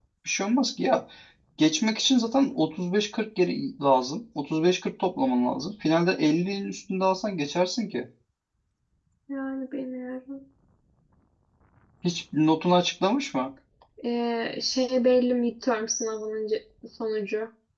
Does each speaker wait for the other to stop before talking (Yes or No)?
Yes